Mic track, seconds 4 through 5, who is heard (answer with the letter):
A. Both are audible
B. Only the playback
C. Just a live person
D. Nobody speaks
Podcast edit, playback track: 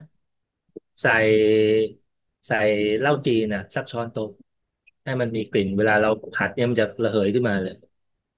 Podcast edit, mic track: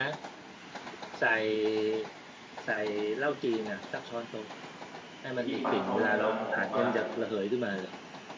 B